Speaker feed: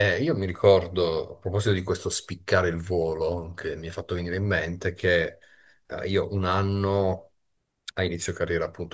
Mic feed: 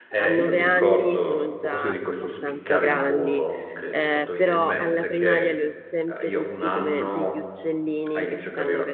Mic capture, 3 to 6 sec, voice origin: both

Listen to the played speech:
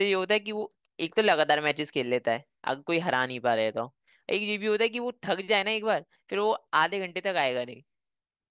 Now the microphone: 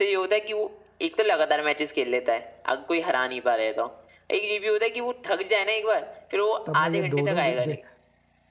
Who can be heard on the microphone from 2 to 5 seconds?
echo only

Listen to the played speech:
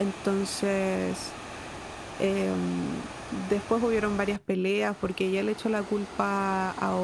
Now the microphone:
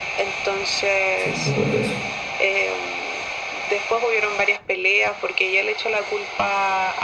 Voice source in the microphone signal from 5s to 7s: echo only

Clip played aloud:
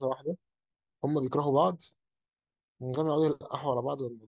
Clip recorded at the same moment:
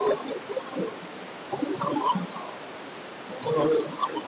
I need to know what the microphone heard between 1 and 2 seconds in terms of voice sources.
echo only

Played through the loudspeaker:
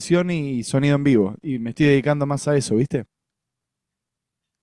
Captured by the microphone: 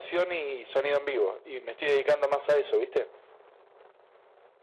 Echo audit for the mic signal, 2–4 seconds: echo only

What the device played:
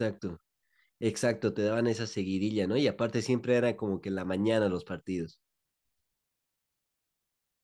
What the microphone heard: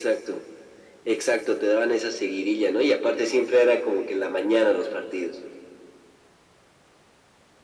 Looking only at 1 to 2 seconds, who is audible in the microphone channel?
echo only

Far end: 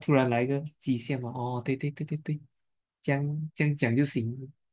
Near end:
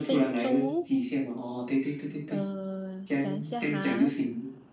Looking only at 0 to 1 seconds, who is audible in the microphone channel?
both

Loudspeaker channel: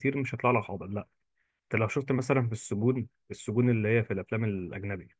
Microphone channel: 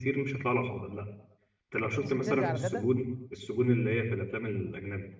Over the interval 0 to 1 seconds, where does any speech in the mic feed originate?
echo only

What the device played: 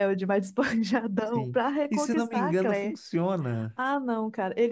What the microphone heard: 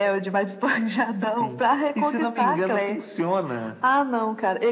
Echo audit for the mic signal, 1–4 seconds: echo only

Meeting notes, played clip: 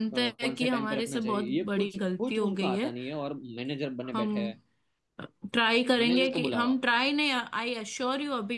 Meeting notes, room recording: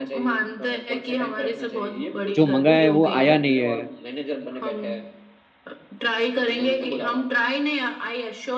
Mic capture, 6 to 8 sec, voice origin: echo only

